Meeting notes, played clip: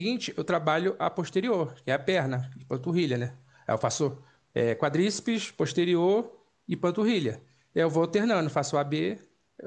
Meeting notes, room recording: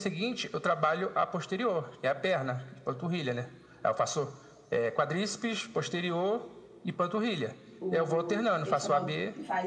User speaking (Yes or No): Yes